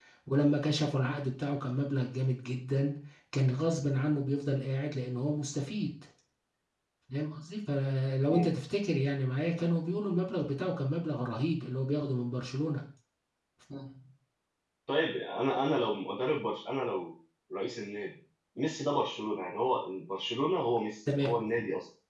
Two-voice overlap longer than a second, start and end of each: none

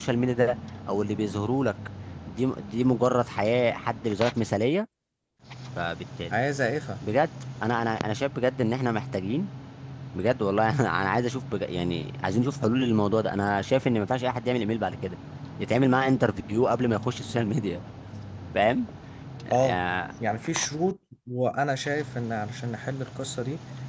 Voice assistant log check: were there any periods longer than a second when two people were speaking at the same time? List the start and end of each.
none

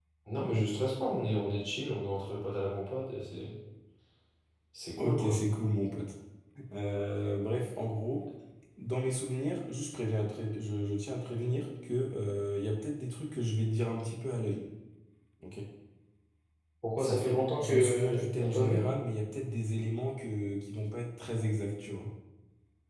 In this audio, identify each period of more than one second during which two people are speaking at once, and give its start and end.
17.0-18.8

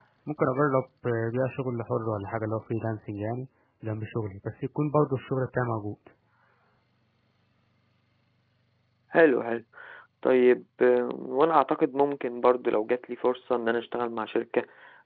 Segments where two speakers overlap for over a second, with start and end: none

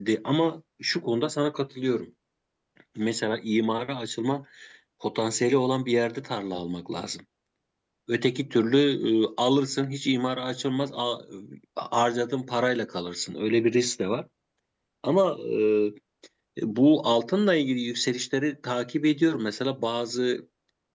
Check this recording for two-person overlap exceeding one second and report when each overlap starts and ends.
none

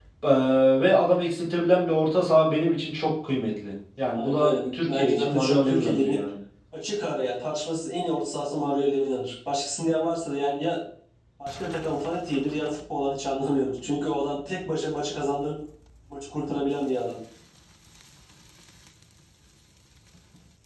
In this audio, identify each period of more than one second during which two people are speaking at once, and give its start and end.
4.1-6.2

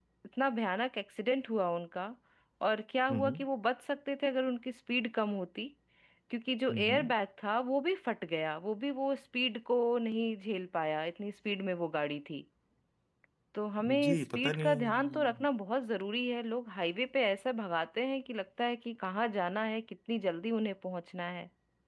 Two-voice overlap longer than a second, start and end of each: 14.0-15.2

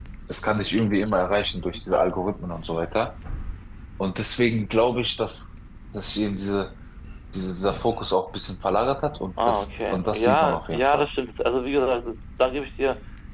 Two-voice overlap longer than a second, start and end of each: 9.5-11.1

